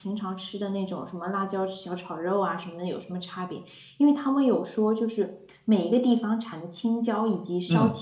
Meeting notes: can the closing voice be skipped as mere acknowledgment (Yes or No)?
Yes